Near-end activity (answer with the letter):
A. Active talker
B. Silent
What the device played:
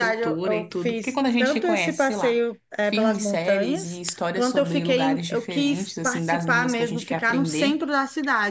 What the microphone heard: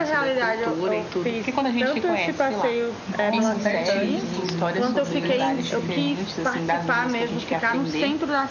A